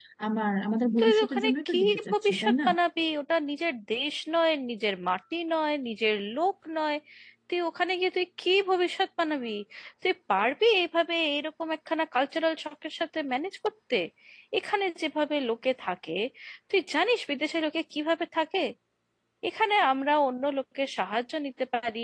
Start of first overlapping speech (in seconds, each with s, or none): 1.0 s